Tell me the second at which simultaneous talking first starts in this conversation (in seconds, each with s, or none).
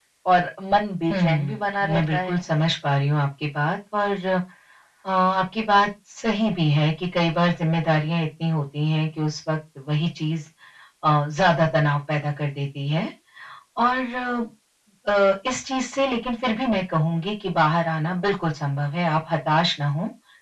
1.1 s